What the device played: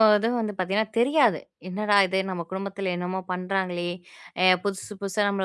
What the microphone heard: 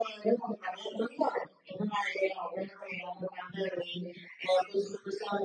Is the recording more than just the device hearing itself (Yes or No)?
No